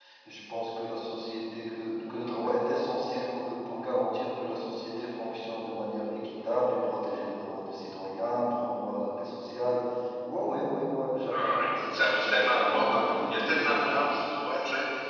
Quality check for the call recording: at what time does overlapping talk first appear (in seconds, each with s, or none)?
11.3 s